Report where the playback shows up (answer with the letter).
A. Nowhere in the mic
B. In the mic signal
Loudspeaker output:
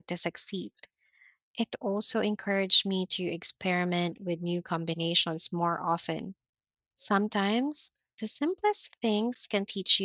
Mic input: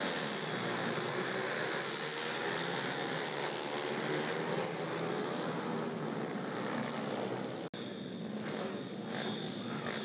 A